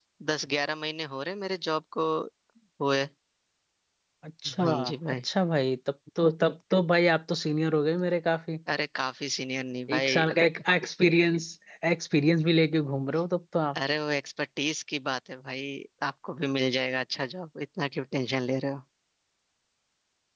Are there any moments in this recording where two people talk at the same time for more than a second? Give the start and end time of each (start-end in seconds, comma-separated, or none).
none